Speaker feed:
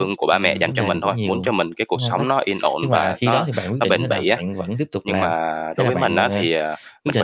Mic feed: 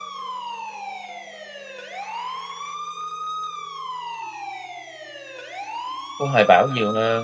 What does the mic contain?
user only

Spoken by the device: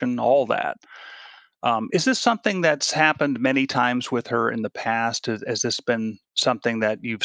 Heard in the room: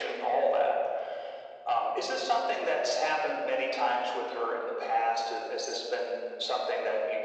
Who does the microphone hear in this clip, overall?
echo only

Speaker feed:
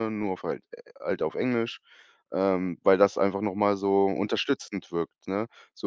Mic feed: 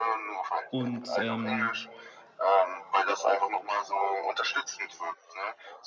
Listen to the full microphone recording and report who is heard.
both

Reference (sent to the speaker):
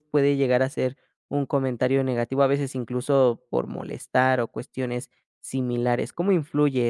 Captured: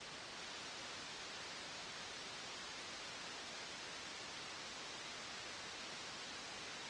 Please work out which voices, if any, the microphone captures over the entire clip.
neither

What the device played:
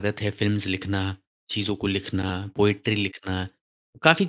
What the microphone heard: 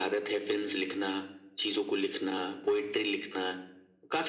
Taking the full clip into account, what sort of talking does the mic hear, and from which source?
echo only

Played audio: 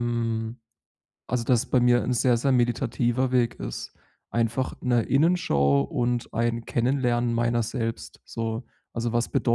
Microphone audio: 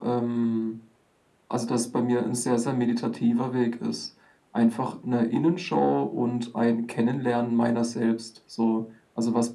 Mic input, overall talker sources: echo only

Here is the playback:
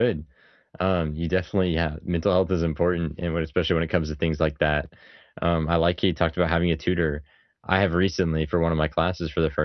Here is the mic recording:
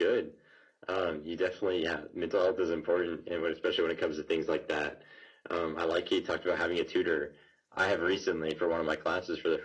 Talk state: echo only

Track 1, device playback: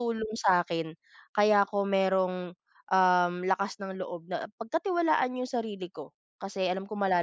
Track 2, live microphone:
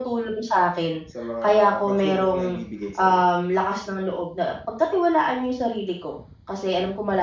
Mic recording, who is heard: both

